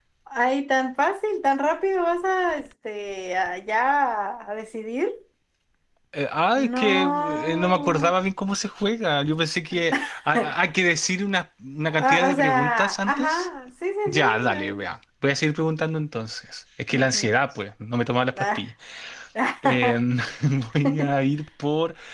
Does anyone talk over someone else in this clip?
Yes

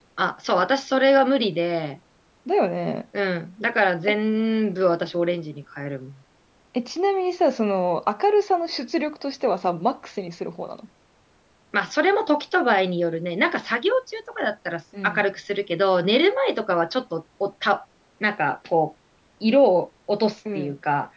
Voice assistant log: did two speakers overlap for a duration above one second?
No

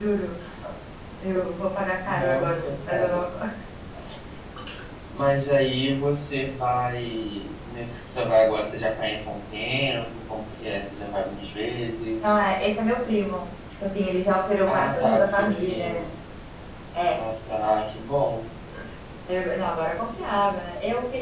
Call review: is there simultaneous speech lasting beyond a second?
Yes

